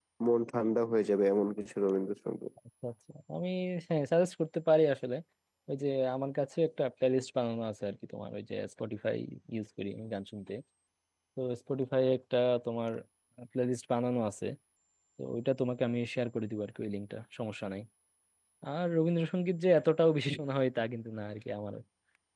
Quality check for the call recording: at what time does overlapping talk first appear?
none

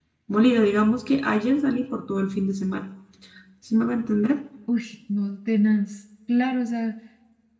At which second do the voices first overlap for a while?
none

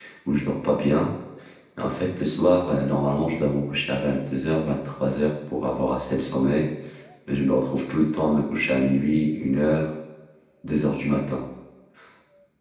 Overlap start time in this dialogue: none

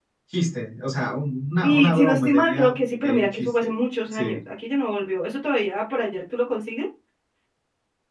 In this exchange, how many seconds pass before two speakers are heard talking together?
1.6 s

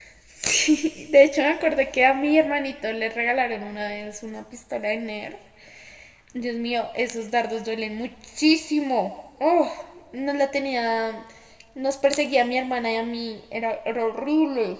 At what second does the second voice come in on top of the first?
none

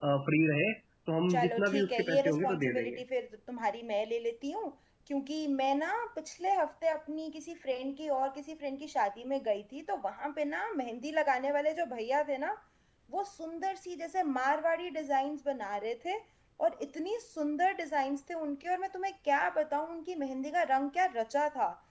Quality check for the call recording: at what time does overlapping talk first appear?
1.3 s

